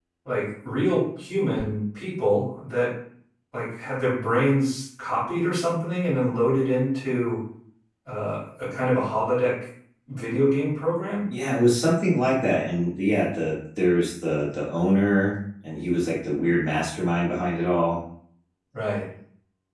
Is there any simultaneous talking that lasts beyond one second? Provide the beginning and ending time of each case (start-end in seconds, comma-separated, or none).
none